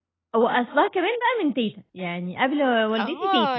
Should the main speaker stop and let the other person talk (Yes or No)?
Yes